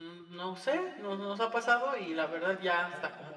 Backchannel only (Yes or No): No